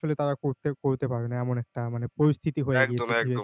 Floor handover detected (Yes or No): Yes